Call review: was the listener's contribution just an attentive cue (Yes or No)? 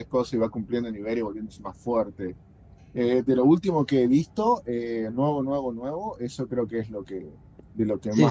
No